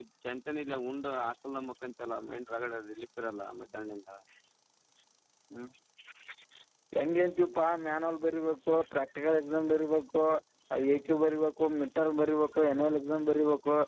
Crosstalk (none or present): none